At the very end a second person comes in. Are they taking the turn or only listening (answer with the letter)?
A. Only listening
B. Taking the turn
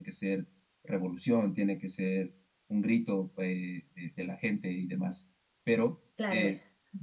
A